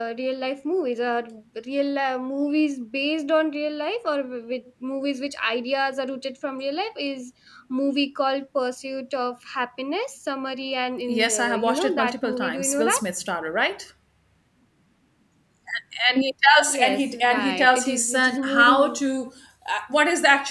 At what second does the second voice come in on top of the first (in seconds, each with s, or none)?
11.1 s